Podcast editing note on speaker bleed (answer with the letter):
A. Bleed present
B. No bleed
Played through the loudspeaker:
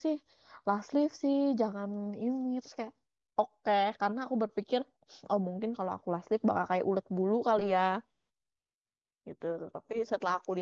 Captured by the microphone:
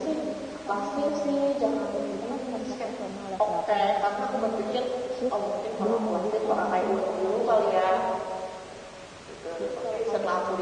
A